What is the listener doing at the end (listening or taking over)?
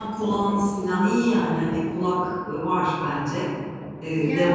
taking over